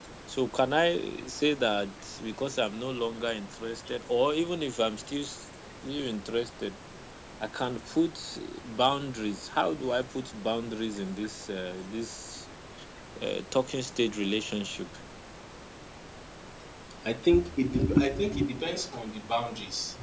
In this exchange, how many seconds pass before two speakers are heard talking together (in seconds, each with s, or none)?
none